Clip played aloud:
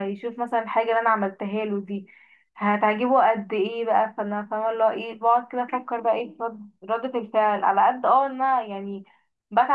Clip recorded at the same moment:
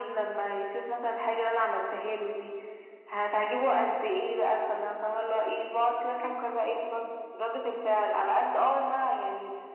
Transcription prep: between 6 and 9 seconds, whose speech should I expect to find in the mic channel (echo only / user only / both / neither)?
echo only